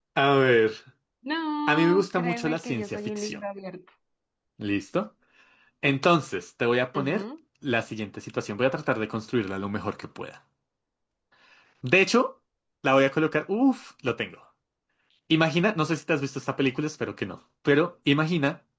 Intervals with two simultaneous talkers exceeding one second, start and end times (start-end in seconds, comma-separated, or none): 1.7-3.4